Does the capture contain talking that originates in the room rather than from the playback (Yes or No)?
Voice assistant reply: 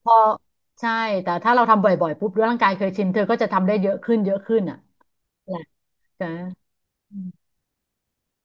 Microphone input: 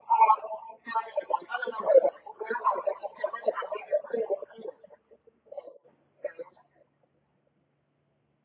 No